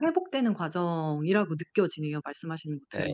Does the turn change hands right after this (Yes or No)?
Yes